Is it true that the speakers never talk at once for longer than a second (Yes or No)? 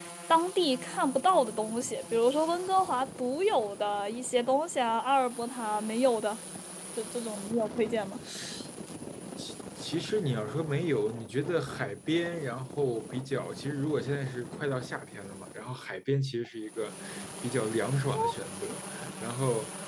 Yes